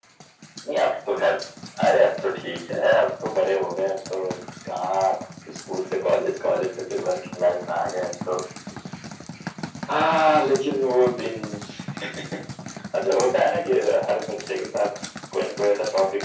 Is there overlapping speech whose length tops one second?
No

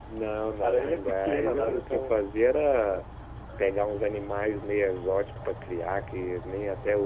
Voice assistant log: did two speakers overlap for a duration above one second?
Yes, from 0.6 s

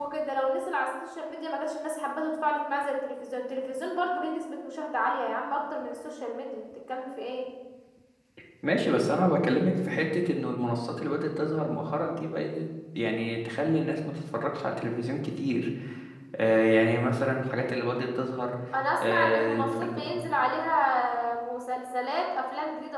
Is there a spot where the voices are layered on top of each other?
Yes, from 19.0 s

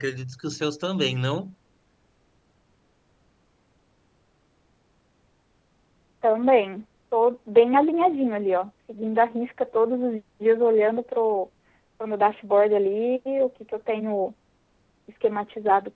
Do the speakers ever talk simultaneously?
No

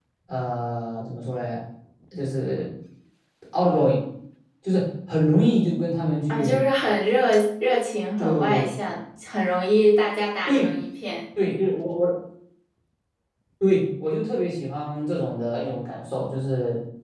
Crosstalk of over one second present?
No

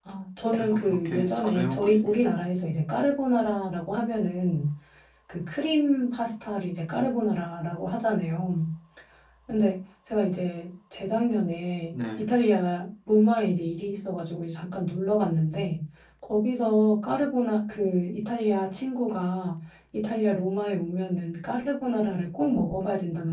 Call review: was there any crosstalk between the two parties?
Yes, from 0.6 s

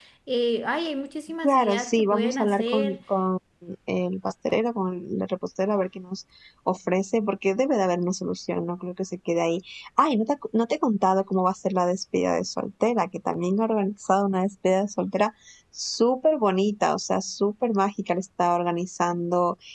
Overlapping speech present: Yes, from 1.4 s

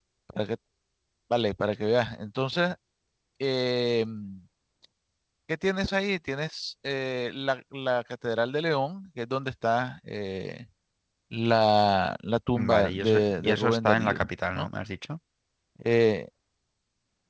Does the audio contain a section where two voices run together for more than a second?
Yes, from 12.6 s

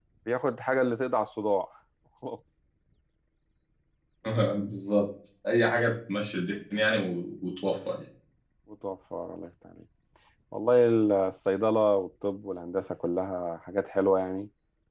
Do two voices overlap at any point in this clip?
No

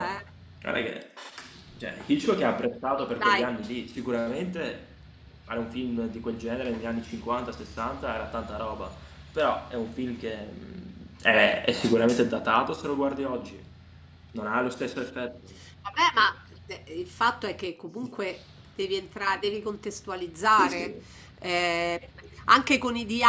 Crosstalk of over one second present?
No

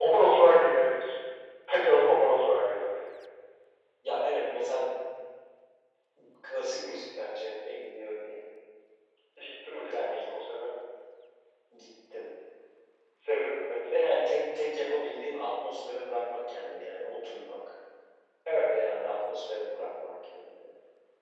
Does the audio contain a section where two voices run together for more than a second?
No

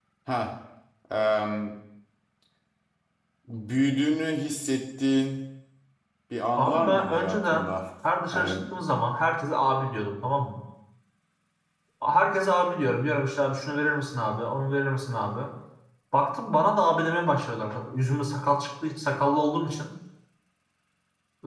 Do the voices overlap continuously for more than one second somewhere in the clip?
Yes, from 6.6 s

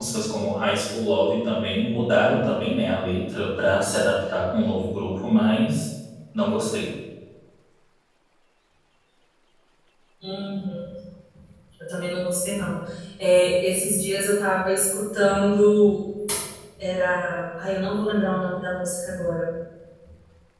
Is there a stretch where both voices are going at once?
No

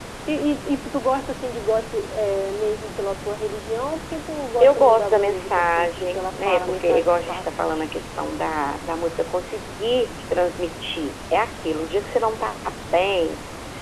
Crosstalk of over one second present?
Yes, from 4.6 s

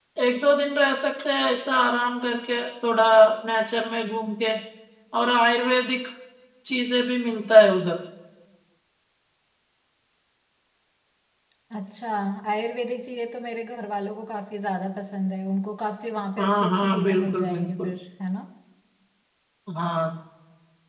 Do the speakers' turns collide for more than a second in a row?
Yes, from 16.4 s

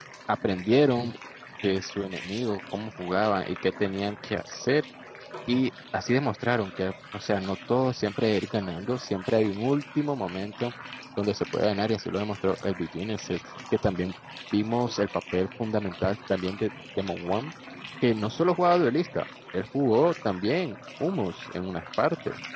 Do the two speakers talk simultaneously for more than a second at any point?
No

